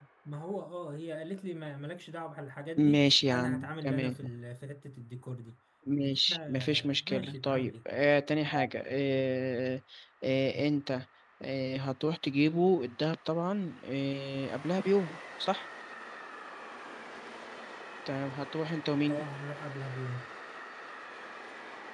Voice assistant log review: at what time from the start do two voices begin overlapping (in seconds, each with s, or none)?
2.8 s